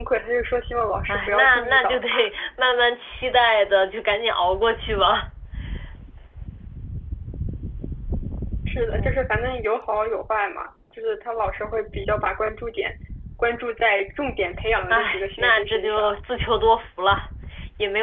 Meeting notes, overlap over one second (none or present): present